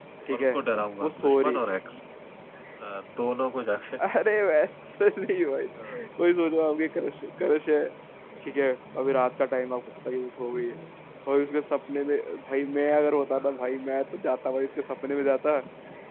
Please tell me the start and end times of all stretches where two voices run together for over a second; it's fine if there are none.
none

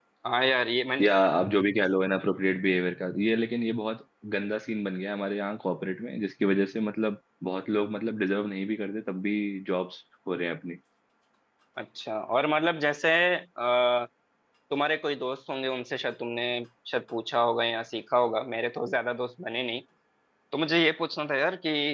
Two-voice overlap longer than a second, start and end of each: none

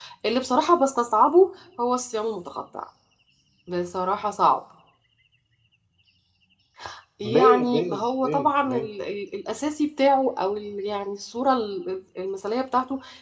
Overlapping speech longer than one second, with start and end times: 7.3-8.9

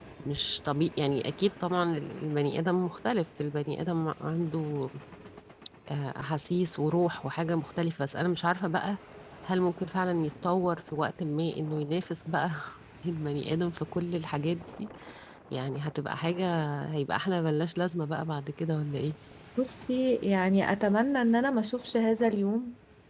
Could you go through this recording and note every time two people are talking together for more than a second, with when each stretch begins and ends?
none

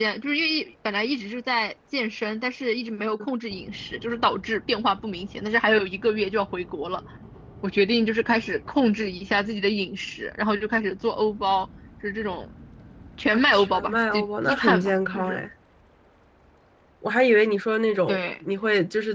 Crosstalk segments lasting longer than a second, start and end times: 13.3-15.4

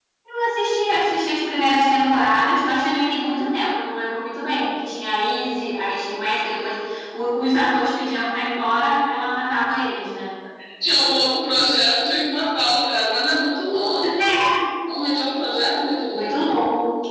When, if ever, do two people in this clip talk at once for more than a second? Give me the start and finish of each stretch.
none

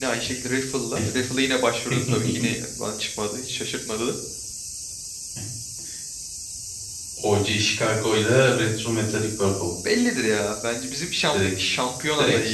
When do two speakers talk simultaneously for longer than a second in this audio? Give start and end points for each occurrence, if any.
none

